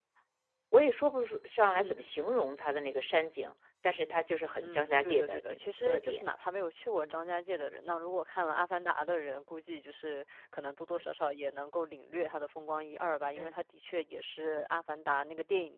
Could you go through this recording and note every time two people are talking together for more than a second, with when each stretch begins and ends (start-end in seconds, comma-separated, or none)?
4.6-6.2